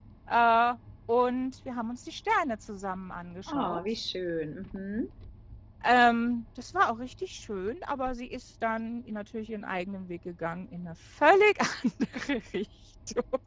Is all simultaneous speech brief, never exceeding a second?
Yes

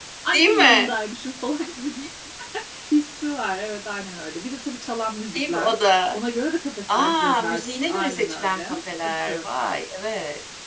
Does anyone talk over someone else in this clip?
Yes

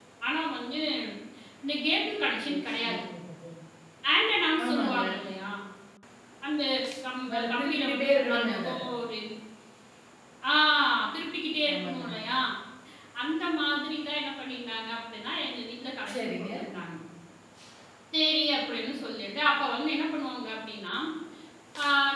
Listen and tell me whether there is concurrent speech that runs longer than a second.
Yes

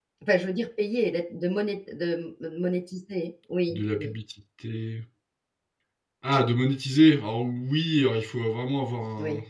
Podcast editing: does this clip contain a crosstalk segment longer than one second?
No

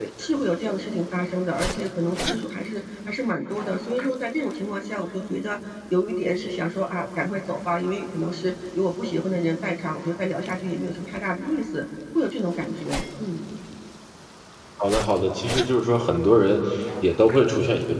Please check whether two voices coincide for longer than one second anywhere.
No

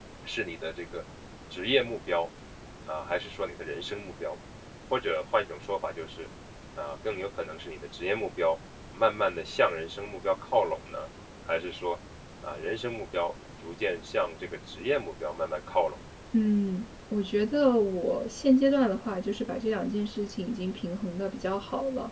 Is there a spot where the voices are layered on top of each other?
No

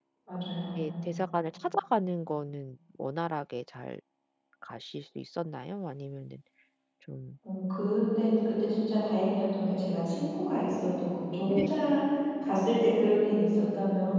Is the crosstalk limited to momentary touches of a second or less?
Yes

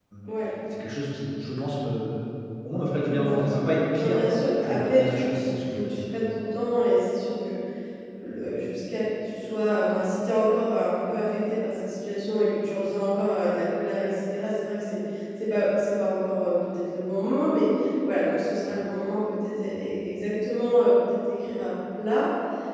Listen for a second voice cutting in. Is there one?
Yes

